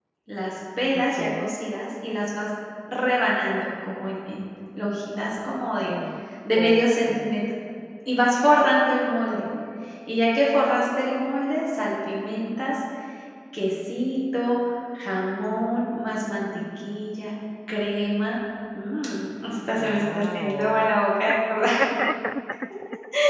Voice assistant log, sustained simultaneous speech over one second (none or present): present